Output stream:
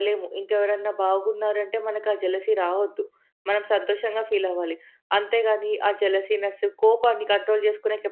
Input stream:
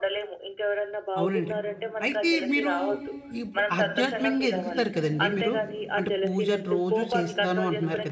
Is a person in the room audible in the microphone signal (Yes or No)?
Yes